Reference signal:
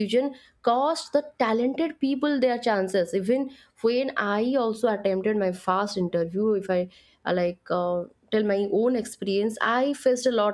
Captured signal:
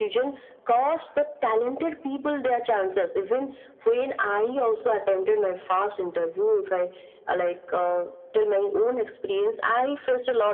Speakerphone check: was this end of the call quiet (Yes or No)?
Yes